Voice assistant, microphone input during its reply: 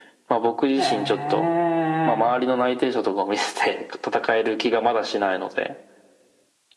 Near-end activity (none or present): present